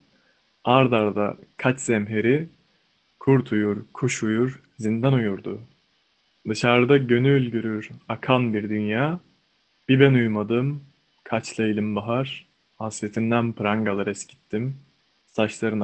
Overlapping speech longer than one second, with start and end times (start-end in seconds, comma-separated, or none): none